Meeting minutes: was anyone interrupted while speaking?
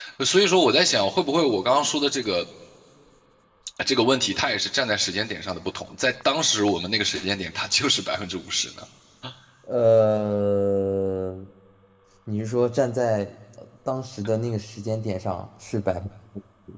No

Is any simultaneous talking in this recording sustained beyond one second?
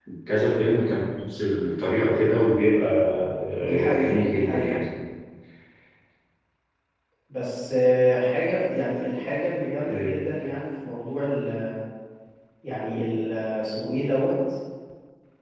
Yes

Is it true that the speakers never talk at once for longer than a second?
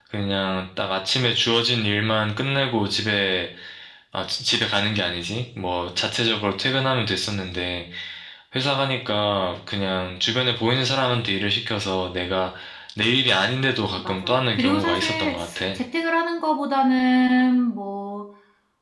No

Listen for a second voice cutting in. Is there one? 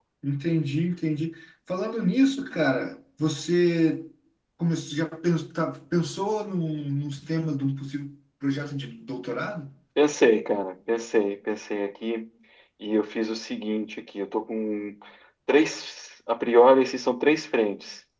No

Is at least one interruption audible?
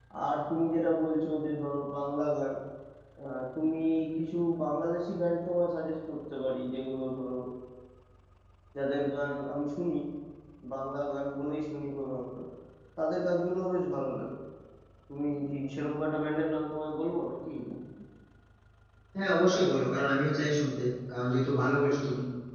No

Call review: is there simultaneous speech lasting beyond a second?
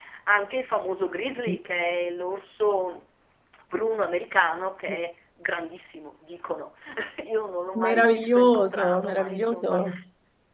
Yes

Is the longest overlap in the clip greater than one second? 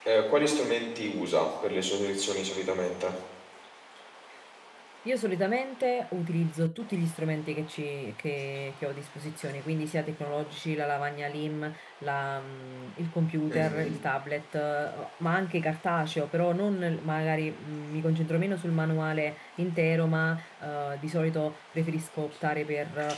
No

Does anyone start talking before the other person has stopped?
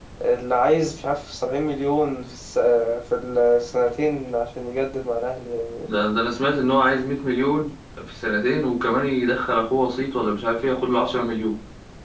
No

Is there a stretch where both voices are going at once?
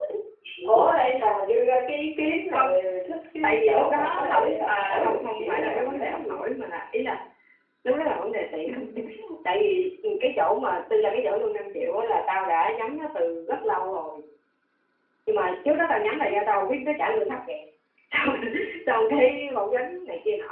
Yes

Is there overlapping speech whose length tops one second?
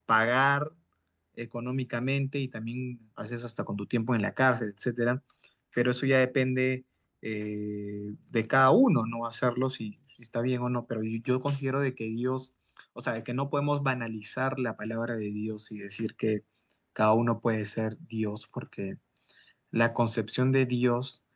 No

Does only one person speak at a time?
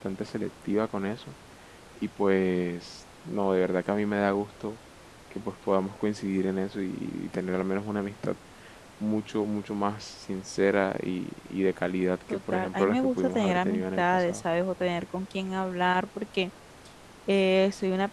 No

